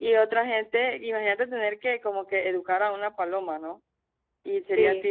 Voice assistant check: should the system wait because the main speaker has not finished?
Yes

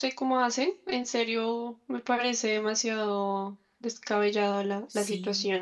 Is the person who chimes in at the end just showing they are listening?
No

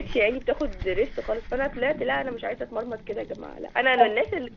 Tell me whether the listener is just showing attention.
Yes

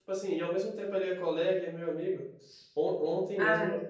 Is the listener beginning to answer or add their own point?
No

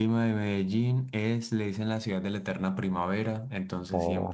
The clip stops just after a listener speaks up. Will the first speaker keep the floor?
Yes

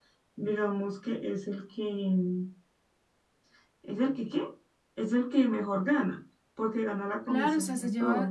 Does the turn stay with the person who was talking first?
No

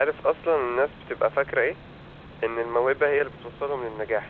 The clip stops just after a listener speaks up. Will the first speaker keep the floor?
Yes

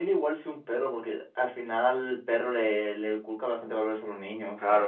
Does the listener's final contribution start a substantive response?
Yes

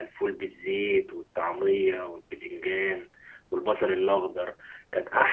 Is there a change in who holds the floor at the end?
No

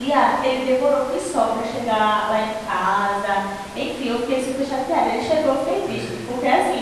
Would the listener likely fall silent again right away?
Yes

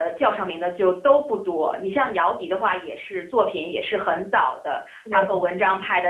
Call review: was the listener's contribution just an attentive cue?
Yes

